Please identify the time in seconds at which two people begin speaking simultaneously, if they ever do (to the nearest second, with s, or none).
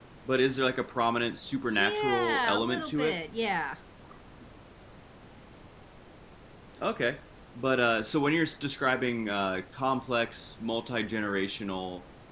2 s